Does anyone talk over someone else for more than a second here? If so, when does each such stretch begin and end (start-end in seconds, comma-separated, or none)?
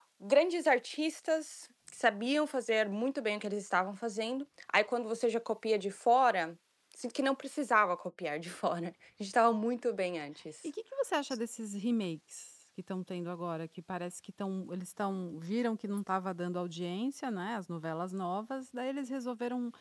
none